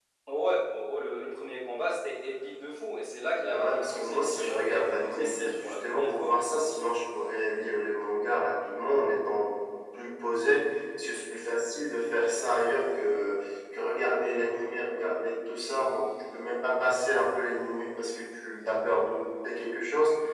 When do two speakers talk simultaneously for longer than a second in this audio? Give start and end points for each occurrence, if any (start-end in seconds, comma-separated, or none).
3.3-6.3